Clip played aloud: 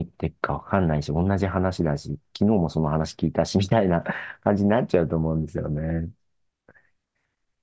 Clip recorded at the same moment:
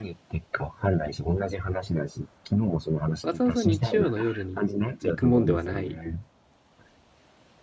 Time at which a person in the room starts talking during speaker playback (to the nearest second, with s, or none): 3 s